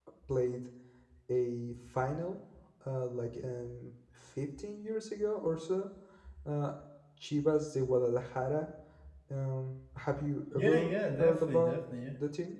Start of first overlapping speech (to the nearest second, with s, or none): 11 s